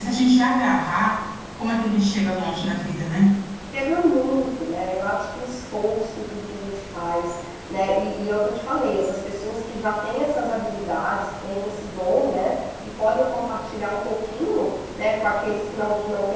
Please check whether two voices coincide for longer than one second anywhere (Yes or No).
No